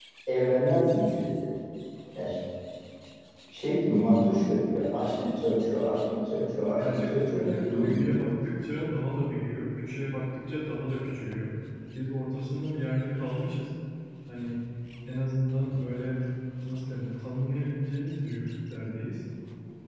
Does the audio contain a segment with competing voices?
Yes, from 6.8 s

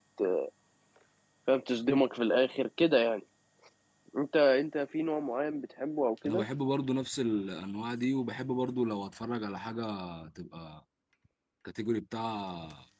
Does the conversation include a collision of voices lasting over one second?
No

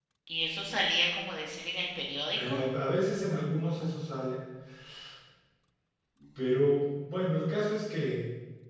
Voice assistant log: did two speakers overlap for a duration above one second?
No

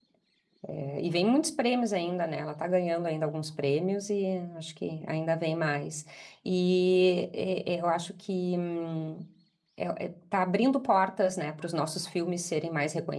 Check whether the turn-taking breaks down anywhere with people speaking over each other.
No

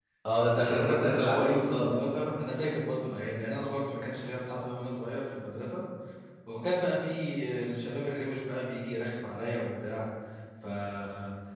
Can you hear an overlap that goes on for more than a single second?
Yes, from 0.6 s

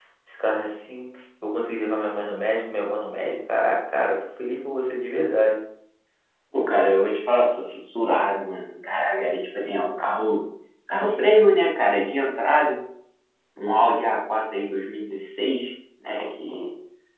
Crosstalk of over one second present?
No

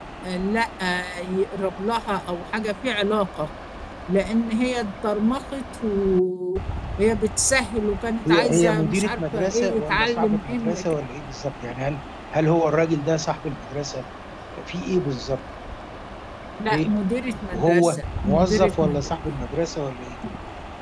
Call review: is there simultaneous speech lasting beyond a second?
Yes, from 8.3 s

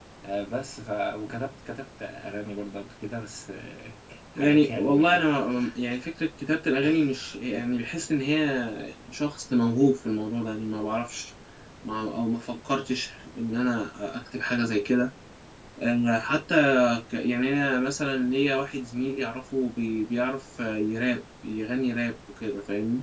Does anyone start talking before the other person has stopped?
Yes, from 4.4 s

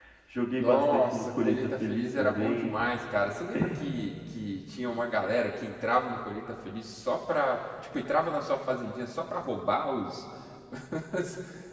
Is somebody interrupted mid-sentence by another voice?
Yes, from 0.6 s

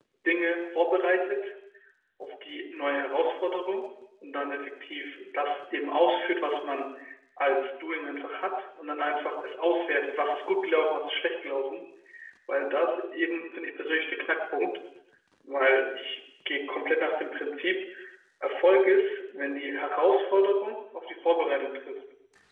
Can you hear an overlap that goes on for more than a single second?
No

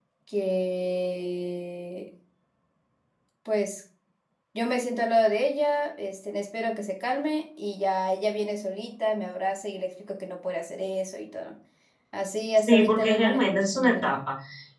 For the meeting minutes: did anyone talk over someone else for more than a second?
Yes, from 12.6 s

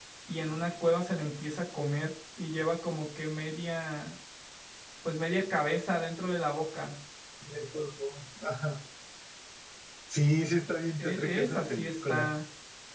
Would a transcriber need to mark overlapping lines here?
Yes, from 11.0 s

